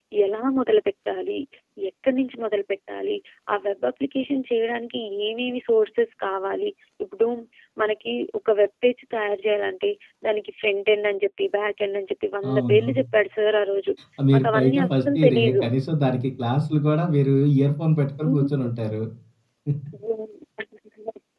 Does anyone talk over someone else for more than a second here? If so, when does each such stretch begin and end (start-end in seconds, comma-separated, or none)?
14.3-15.7